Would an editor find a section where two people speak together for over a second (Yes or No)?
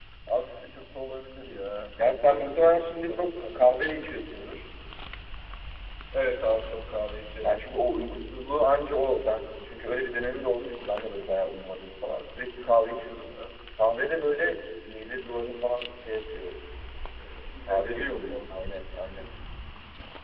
Yes